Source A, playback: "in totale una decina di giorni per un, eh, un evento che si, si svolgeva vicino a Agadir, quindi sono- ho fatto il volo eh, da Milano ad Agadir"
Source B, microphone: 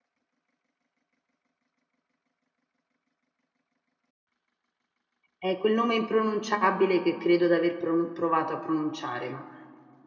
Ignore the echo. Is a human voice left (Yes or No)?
Yes